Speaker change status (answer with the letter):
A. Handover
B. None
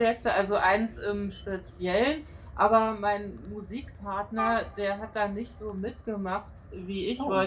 B